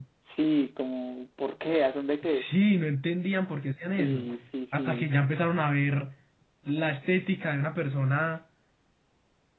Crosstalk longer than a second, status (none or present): none